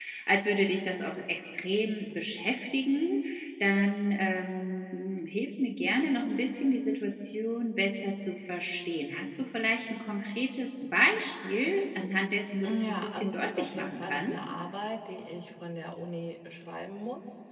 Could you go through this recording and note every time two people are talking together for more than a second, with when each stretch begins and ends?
12.6-14.4

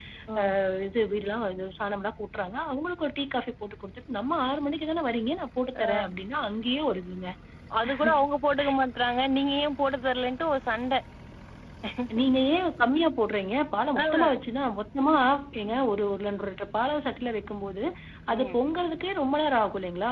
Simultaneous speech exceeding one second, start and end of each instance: none

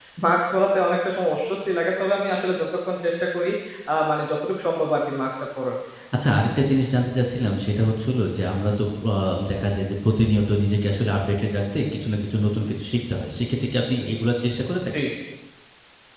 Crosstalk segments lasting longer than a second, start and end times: none

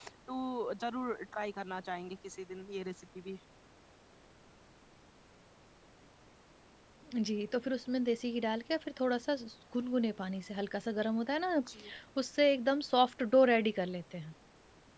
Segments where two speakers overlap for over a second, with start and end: none

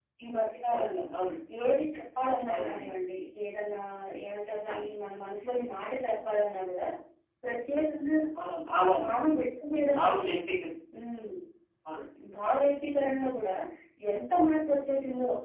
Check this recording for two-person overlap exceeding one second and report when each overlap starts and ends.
none

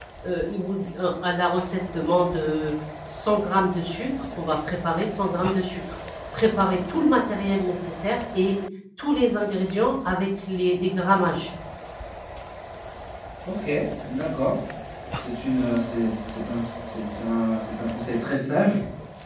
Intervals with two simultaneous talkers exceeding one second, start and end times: none

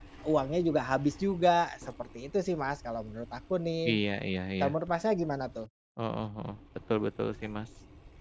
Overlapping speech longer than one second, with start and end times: none

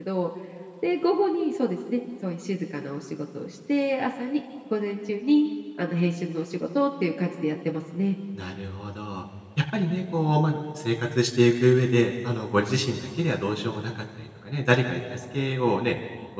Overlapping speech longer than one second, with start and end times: none

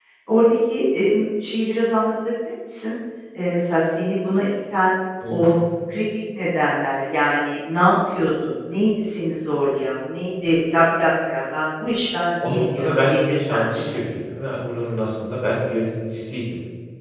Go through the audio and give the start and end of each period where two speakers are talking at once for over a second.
12.4-14.0

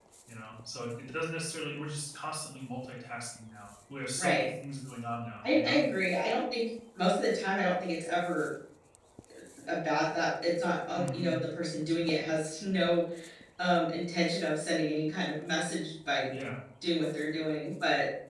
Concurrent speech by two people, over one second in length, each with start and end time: none

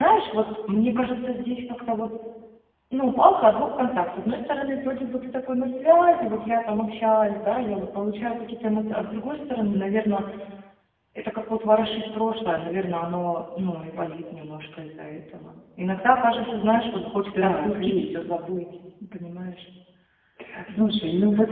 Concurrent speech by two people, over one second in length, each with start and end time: 17.3-18.5

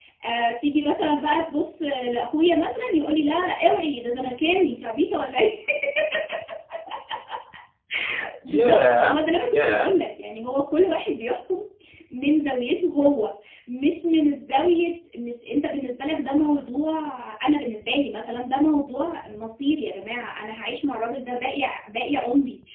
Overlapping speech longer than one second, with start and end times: 8.4-9.9

